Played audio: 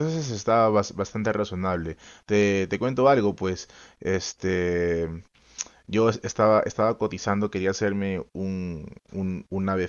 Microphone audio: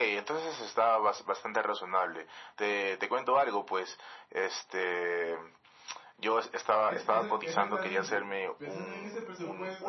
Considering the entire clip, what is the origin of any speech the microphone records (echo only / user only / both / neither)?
both